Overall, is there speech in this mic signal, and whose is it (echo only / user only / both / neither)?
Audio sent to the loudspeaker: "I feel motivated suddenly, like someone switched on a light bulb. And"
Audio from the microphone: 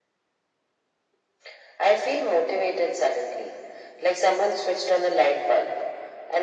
echo only